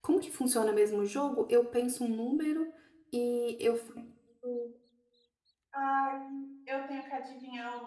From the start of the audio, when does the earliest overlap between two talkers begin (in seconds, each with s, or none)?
none